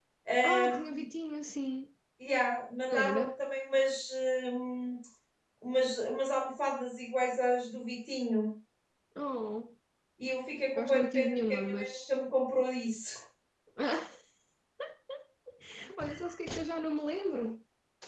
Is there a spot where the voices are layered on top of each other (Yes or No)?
Yes